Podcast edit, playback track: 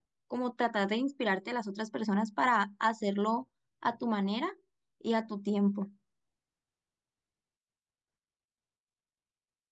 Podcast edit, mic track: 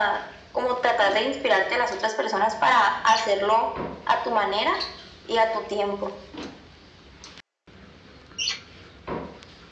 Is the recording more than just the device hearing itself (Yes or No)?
No